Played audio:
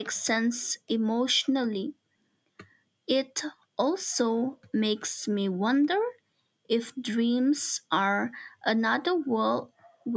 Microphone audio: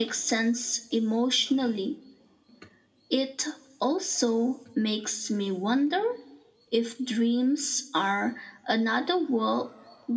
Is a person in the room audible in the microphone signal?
No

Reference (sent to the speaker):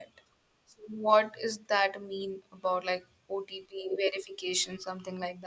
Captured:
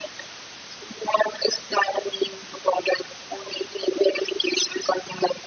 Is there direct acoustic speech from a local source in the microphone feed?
No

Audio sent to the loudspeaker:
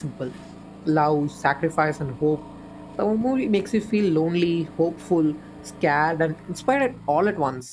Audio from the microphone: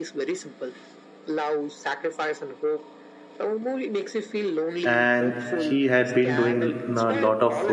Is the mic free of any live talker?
No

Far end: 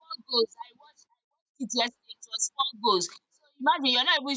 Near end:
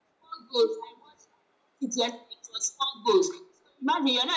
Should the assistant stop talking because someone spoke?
No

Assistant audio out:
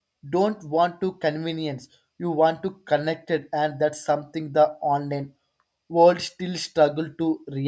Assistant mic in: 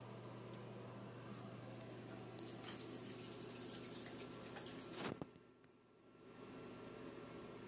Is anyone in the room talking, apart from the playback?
No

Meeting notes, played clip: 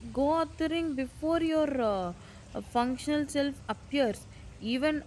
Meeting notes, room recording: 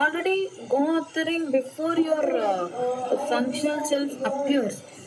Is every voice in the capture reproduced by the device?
No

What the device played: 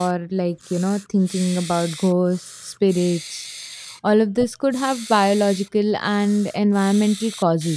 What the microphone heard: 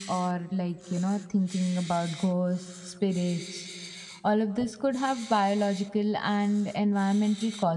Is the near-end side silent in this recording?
Yes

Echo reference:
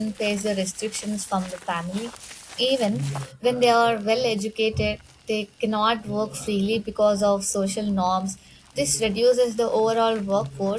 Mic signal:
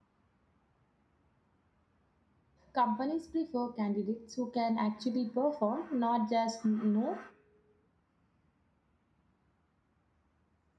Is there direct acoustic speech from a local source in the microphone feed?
Yes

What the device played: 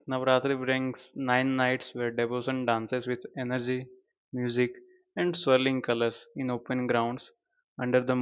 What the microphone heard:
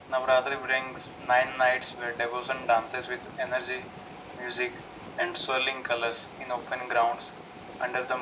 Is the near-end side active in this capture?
No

